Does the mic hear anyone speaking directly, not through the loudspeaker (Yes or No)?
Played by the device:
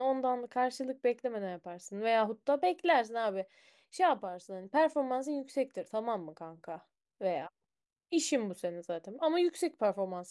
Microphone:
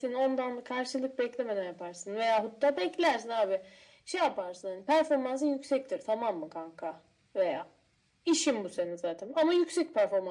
No